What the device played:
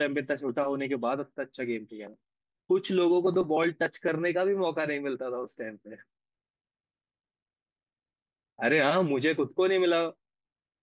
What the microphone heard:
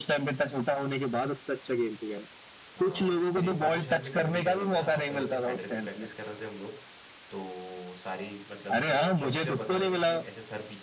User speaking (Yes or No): Yes